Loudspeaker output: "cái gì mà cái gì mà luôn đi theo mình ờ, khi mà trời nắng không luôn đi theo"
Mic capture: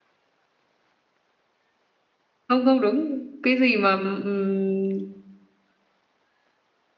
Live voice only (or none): không không đúng cái gì mà ừm,